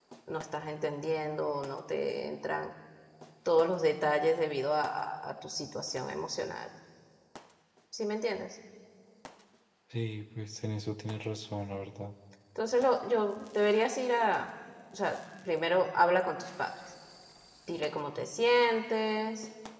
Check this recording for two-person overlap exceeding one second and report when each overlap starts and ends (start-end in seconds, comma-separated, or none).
none